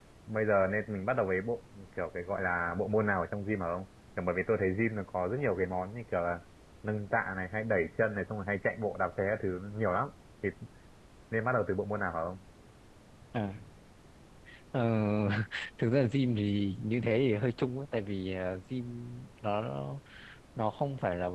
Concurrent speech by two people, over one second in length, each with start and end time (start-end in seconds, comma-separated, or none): none